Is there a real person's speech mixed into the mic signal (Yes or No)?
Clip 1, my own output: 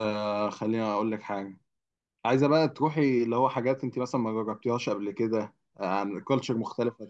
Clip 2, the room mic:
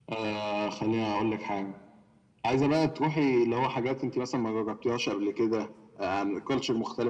No